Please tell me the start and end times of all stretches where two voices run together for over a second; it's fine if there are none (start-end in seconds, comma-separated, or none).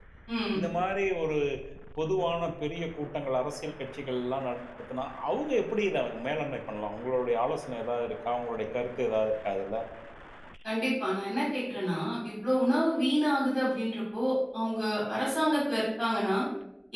none